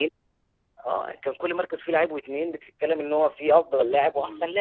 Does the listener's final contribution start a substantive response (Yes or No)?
Yes